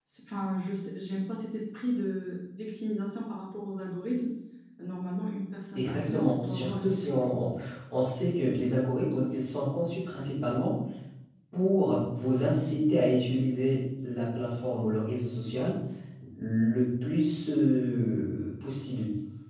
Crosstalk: present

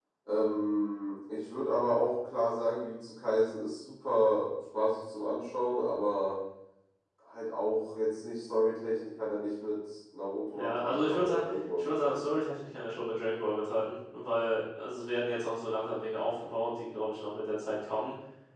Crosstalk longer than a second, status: present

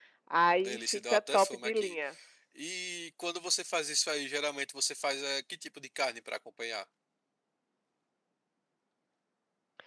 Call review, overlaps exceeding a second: present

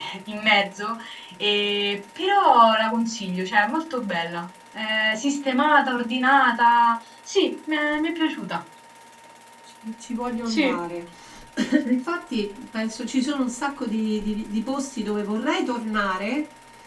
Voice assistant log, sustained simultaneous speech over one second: none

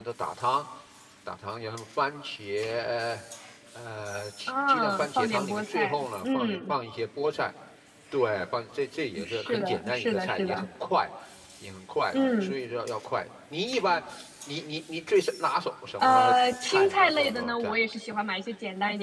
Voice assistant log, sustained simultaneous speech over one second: present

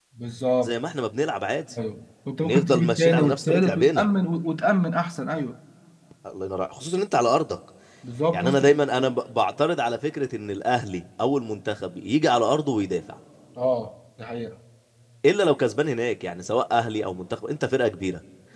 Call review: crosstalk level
present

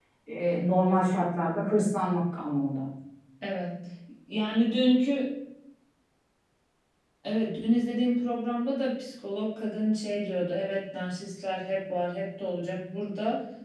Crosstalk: none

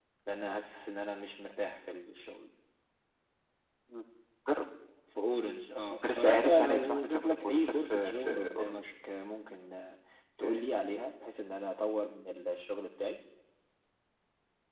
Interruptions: present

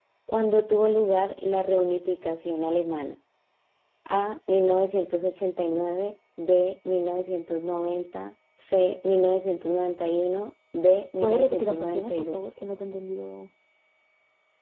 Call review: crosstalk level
present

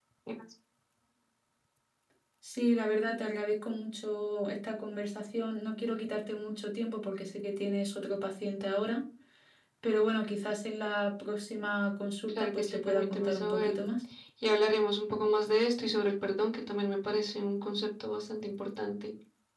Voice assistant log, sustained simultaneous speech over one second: present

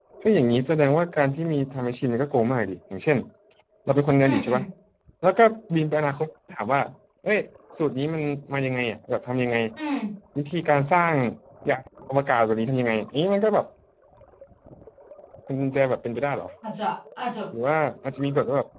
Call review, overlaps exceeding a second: none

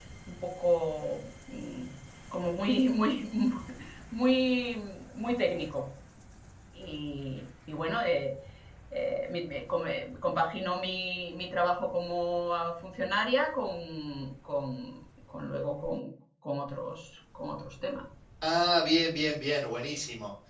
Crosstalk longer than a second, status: none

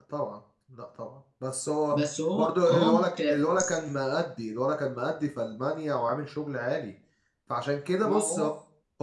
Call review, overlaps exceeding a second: present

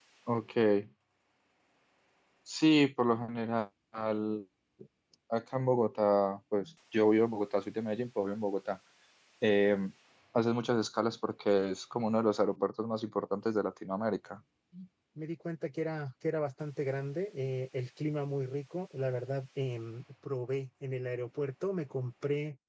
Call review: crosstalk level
none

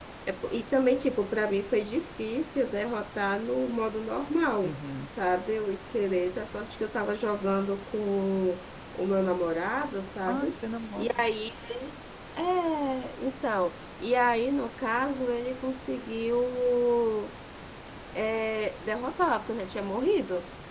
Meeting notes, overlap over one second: none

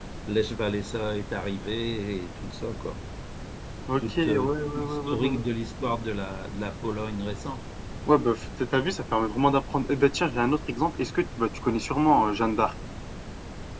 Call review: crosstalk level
present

